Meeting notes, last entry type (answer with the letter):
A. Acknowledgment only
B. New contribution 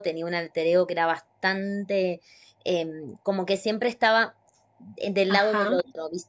A